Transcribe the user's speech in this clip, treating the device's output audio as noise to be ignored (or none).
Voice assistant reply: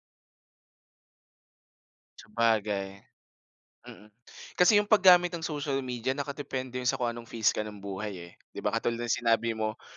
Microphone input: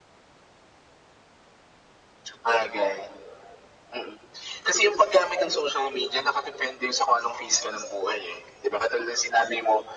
none